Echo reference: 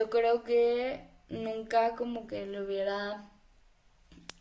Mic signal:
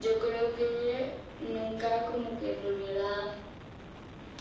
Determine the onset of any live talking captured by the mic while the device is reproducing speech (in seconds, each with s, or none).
none